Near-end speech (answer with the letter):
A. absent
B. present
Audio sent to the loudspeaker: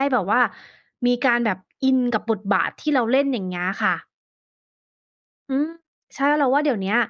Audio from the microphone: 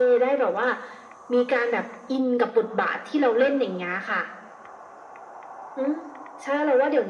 A